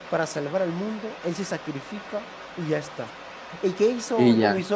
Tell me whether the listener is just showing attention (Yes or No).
Yes